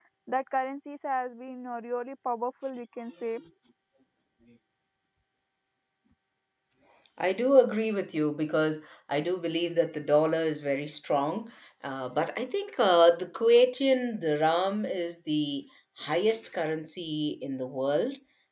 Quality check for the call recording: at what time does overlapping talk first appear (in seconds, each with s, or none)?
none